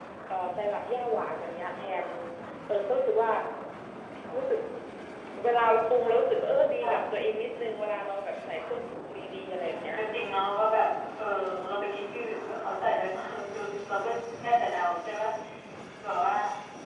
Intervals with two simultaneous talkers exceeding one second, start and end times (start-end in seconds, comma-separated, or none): none